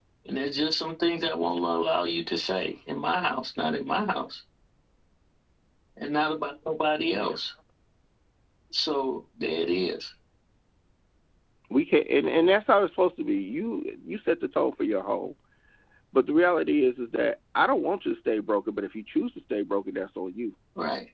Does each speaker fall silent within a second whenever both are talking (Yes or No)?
Yes